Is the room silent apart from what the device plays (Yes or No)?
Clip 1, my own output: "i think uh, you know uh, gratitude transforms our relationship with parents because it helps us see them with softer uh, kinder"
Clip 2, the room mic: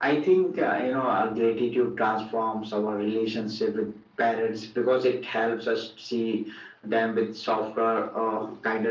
Yes